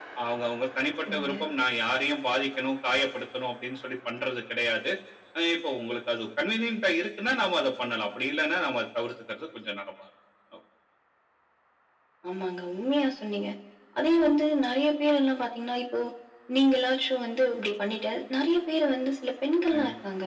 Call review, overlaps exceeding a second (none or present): none